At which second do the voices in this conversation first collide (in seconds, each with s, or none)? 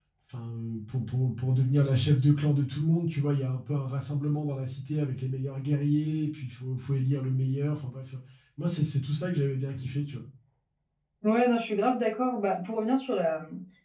none